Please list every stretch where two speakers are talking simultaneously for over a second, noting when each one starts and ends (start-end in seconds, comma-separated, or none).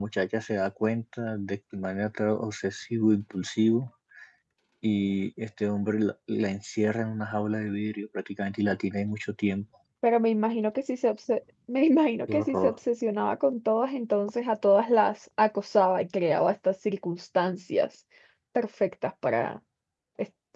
none